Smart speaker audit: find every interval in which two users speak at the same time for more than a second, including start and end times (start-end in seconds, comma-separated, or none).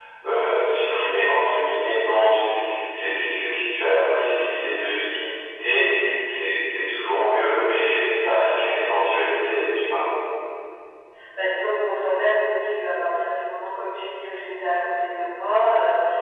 none